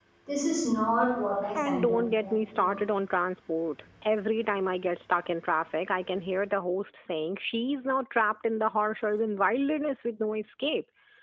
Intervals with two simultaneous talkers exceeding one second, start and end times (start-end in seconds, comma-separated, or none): 1.5-2.8